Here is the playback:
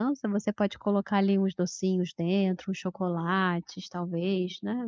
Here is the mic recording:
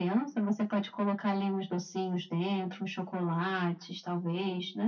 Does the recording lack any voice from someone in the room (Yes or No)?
Yes